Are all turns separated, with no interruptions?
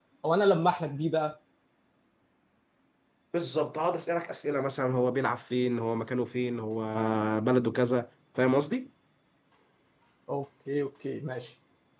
Yes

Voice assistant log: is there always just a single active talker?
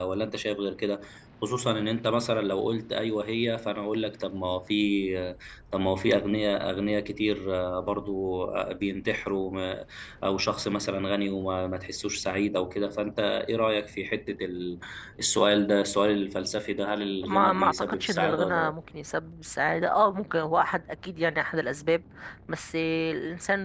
No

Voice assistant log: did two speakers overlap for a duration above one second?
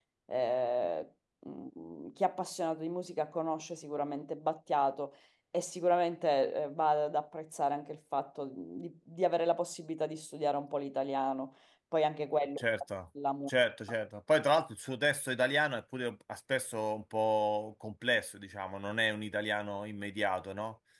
No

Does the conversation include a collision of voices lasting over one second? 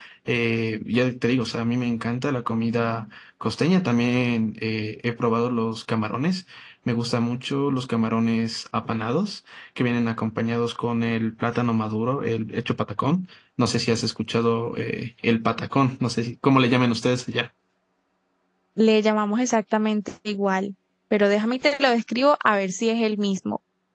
No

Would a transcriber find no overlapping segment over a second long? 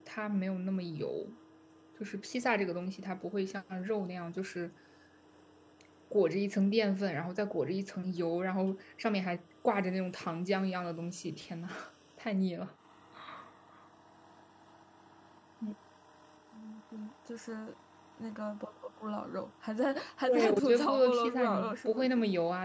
No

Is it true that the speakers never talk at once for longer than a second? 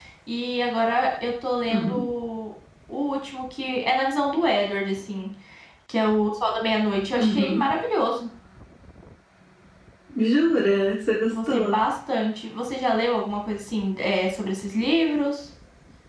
Yes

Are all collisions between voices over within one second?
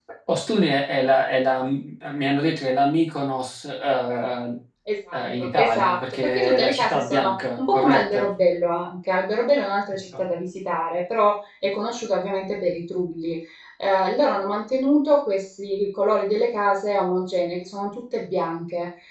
No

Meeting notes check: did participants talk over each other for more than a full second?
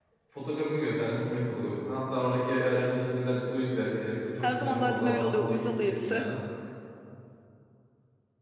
Yes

